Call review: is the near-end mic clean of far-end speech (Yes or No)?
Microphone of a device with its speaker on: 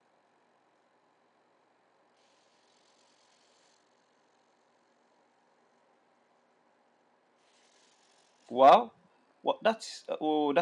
Yes